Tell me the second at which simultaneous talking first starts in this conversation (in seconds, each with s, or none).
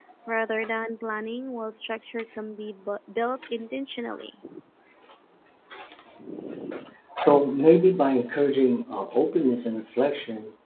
none